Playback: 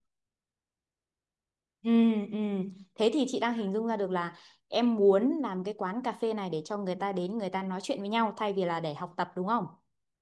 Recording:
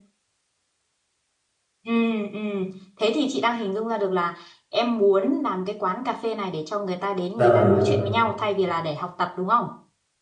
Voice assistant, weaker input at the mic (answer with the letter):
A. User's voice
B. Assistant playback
B